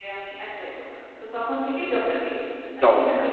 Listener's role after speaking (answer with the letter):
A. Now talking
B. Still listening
A